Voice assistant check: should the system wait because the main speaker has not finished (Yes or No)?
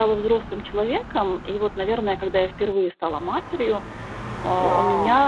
Yes